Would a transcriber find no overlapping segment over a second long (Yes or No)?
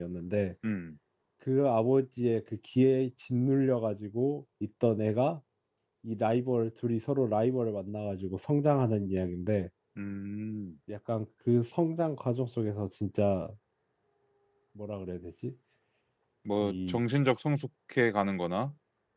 Yes